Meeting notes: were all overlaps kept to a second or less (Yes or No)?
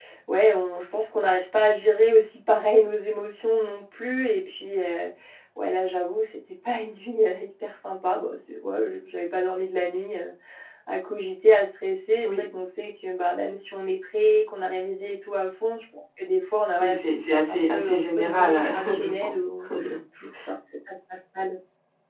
No